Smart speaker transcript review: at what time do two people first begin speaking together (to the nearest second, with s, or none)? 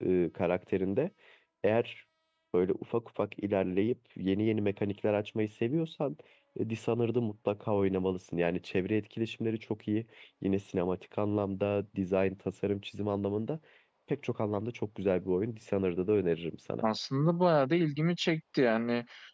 none